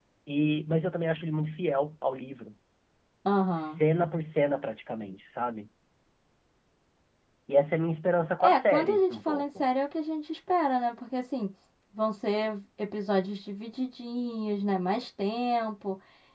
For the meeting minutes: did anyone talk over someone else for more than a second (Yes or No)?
Yes